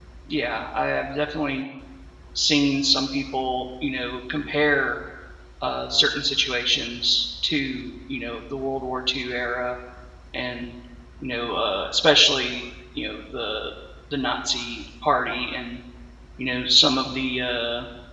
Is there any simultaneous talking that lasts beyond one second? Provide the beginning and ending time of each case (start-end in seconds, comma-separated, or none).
none